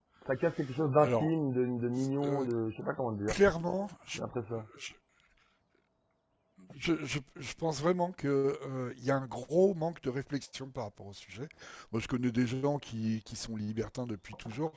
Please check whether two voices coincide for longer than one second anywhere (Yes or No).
No